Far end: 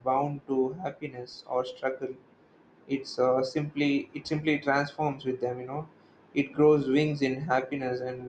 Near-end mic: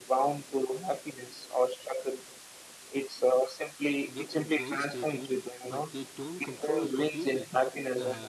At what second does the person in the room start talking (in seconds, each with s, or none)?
4.2 s